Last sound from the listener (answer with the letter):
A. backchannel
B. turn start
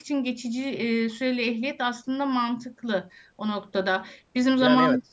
B